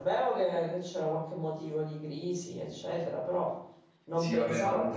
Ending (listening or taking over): taking over